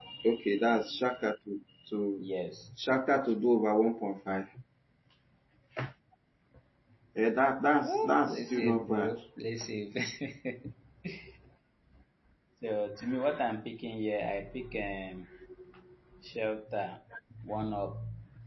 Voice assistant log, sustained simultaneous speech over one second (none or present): present